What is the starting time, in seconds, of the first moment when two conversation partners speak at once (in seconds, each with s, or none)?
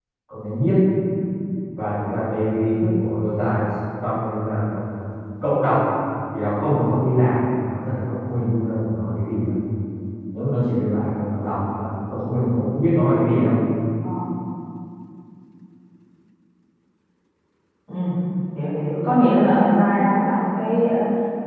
none